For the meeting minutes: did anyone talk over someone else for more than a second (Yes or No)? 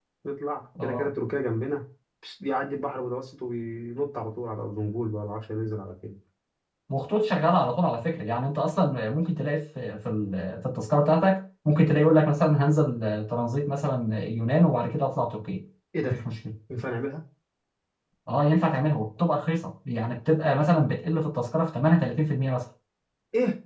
No